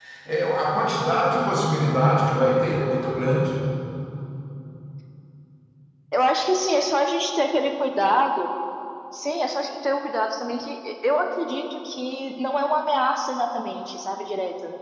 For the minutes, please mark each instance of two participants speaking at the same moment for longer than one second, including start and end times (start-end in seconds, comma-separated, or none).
none